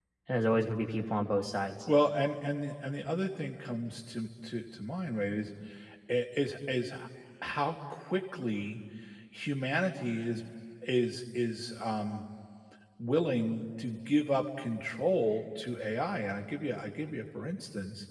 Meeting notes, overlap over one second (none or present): none